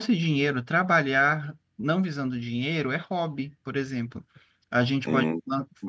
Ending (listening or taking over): listening